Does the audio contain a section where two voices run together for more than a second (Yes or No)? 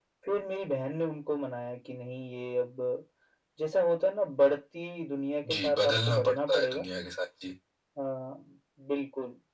Yes